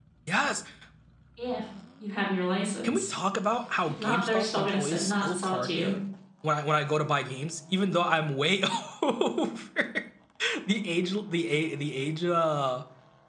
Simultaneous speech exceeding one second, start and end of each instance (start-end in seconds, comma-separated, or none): 3.8-5.9